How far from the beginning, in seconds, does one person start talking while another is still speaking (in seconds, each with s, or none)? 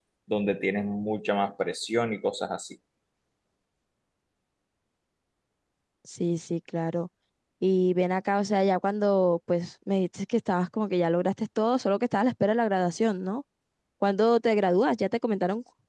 none